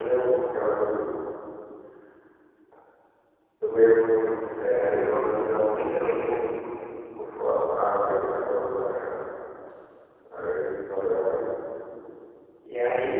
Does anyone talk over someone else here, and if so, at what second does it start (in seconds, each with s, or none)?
4.5 s